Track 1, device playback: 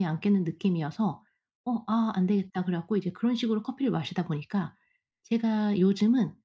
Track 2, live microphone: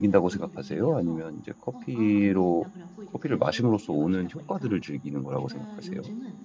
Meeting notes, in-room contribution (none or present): present